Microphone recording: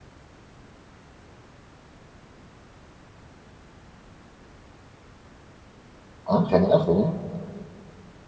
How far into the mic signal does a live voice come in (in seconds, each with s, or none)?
6.2 s